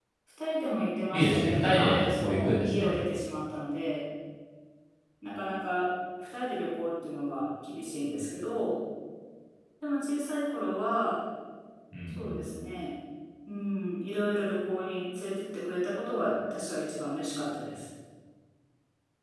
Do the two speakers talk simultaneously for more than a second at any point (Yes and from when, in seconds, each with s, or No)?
Yes, from 1.1 s